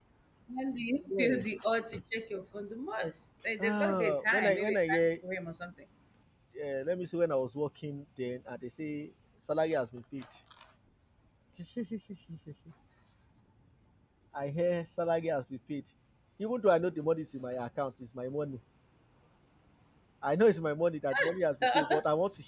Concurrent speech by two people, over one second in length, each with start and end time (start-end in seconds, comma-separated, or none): 3.6-5.1